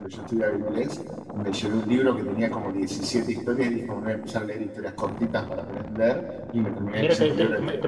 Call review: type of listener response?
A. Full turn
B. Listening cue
A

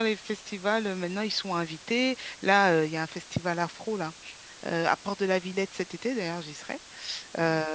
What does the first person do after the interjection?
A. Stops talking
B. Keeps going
B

